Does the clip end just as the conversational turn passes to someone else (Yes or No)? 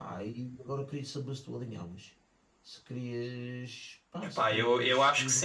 Yes